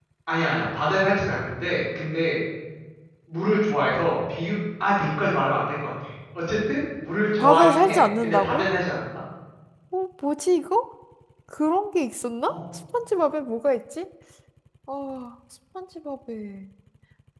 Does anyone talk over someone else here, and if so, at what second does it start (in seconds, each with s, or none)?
7.4 s